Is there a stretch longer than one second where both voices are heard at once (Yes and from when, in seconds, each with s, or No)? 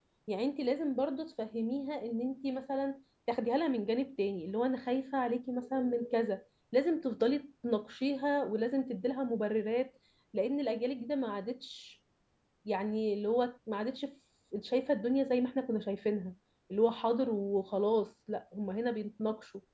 No